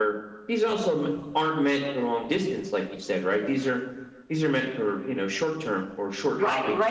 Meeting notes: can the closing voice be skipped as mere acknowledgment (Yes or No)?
No